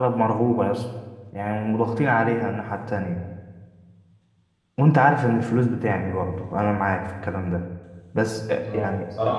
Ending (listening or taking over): taking over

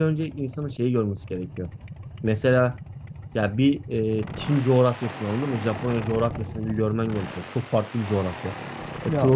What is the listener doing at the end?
listening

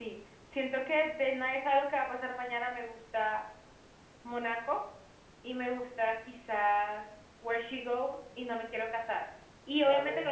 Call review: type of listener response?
listening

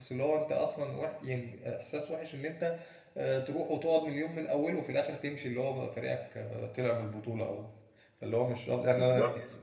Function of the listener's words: taking over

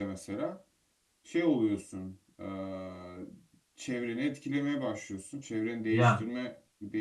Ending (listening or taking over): listening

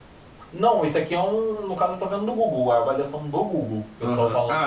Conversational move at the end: taking over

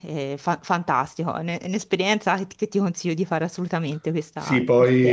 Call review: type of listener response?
taking over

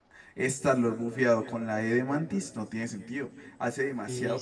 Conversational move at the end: taking over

